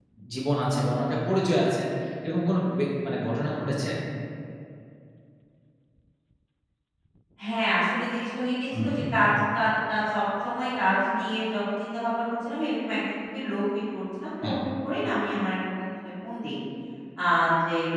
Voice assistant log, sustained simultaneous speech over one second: none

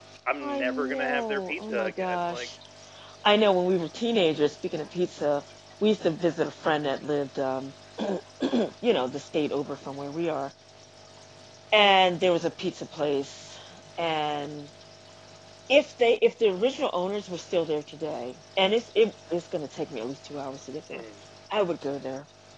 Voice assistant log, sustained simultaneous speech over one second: present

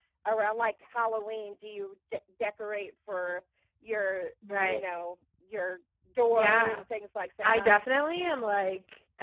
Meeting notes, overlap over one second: none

